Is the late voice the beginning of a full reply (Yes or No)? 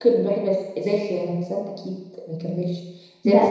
No